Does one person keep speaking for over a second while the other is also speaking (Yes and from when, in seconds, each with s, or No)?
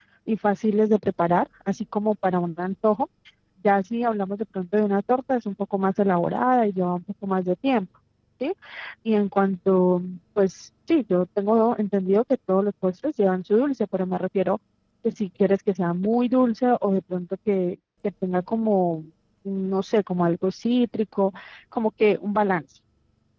No